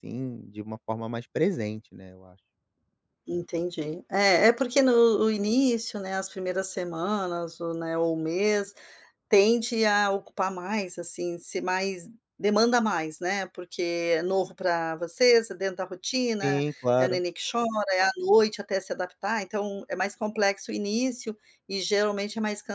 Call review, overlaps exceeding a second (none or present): none